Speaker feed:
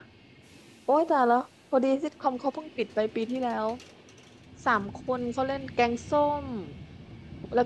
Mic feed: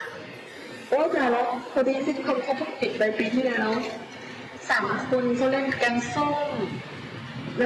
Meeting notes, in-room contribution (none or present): none